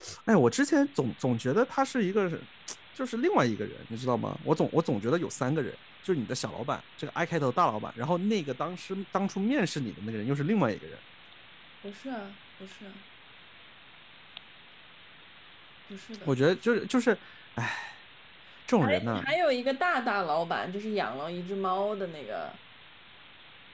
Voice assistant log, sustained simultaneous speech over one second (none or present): none